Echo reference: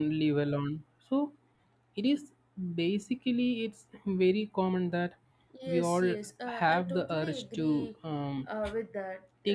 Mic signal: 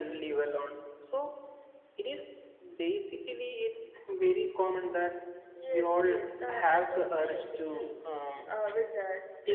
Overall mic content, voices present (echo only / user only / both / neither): echo only